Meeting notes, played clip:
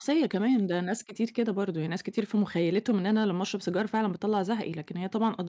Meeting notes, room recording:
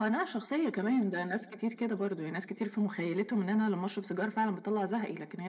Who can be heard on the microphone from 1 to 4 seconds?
echo only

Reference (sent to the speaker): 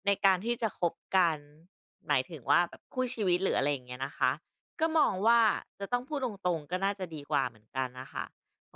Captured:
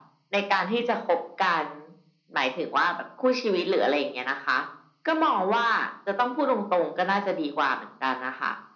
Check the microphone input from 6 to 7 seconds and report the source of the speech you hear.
echo only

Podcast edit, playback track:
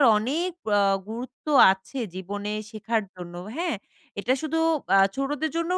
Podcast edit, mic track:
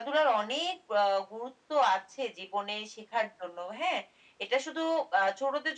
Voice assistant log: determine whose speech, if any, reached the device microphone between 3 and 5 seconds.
echo only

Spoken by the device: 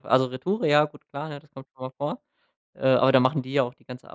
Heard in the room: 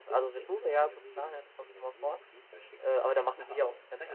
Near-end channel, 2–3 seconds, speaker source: both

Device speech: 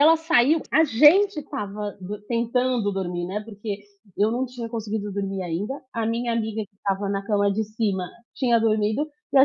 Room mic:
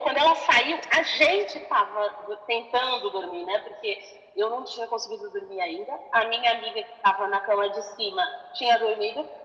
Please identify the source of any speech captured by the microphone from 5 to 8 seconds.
echo only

